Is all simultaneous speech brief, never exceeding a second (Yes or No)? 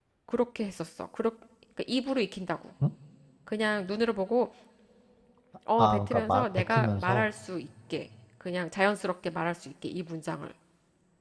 No